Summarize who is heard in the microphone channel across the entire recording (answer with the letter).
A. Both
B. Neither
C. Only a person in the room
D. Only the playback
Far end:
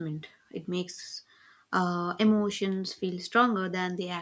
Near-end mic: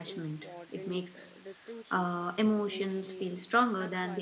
A